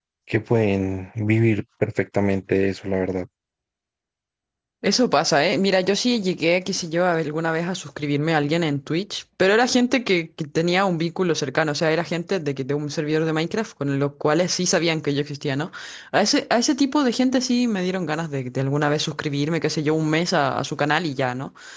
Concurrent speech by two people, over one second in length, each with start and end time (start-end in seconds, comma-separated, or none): none